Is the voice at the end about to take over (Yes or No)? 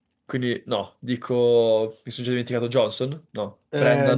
Yes